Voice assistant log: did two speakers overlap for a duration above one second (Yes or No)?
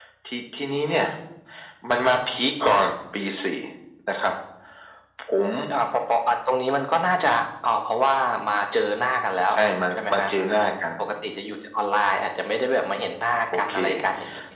No